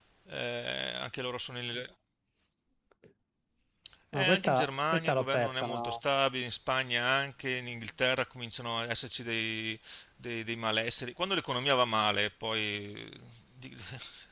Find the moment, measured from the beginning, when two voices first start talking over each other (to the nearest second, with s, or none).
4 s